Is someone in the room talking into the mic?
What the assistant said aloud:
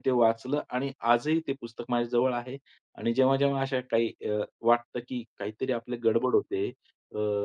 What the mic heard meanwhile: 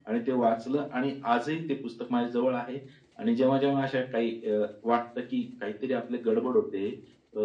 No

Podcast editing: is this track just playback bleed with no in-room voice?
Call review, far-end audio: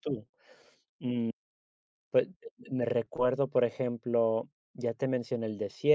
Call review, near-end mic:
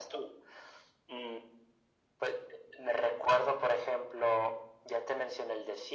Yes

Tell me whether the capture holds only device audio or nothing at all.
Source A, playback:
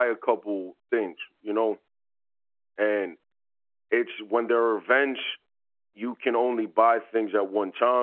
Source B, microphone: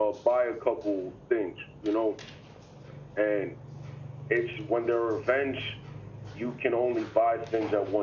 Yes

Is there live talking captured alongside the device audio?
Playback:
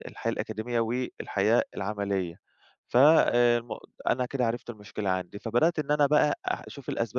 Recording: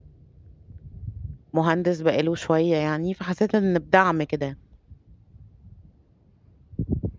Yes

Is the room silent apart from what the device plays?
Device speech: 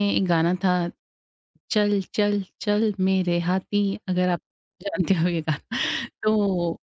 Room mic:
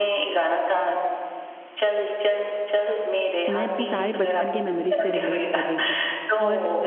No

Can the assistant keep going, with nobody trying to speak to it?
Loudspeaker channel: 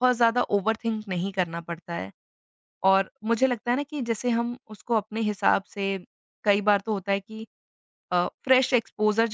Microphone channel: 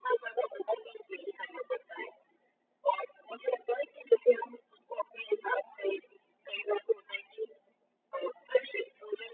Yes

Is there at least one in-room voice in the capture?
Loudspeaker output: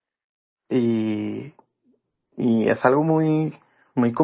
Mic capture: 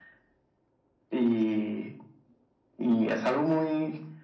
No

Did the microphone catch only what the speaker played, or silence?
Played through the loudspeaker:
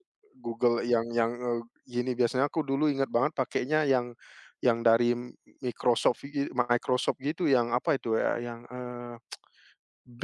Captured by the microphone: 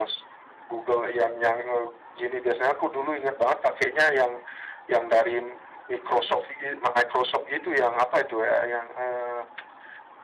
Yes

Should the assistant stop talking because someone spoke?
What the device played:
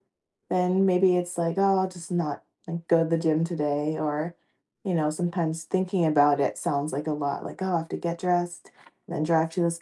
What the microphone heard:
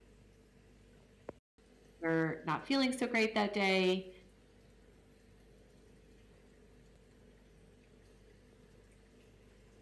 Yes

